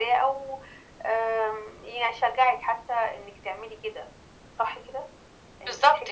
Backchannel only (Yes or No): No